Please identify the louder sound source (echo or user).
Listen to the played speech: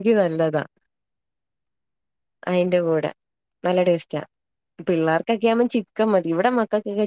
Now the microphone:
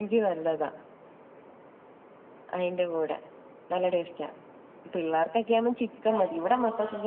echo